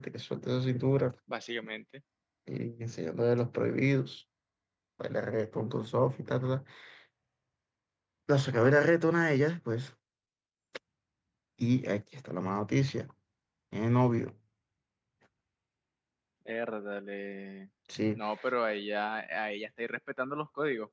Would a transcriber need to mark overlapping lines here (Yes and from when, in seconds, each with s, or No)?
No